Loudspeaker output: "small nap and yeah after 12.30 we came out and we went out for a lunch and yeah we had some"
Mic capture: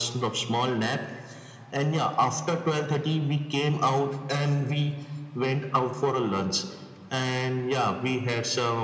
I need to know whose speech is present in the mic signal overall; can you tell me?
echo only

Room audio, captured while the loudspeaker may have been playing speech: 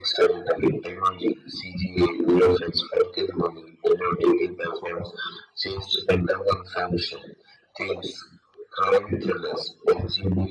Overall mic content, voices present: echo only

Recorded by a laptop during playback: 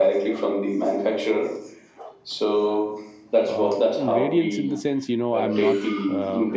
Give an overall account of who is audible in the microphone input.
both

